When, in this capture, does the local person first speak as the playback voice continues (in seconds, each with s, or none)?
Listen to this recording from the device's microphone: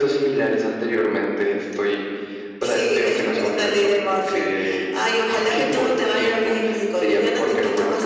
none